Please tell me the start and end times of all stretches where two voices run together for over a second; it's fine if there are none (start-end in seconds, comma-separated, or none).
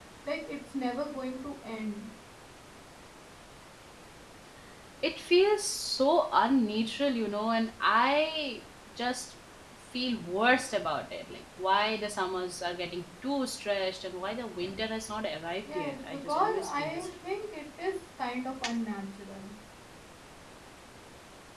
15.8-17.1